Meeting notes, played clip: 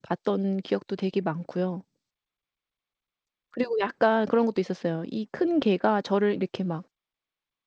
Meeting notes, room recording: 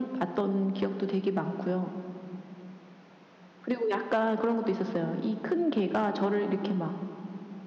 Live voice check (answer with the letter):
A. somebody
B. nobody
B